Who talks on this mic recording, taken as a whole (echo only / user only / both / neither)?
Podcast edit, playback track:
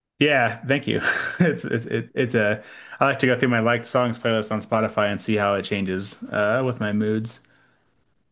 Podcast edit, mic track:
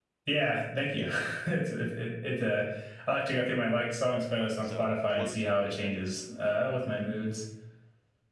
both